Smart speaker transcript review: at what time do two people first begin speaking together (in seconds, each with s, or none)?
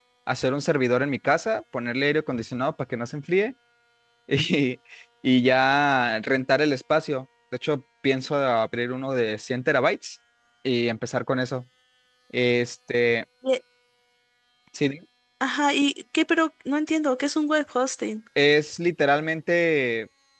none